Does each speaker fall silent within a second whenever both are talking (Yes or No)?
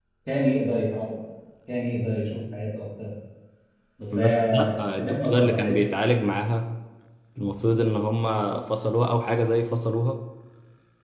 No